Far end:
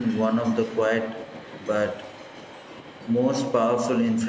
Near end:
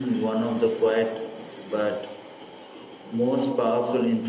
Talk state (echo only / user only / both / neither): echo only